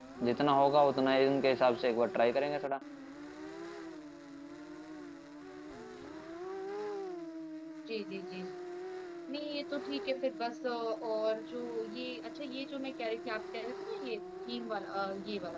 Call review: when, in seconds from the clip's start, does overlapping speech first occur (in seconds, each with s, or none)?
none